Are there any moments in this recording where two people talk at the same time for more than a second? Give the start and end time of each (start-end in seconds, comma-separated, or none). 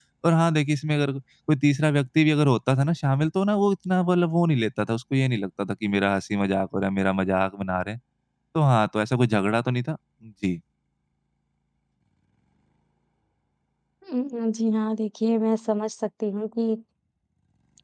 none